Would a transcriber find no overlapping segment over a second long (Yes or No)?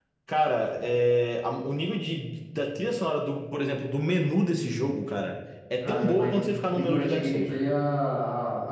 No